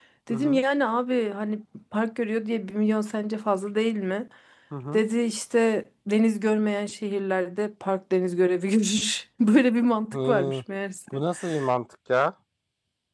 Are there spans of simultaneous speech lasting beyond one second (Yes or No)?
No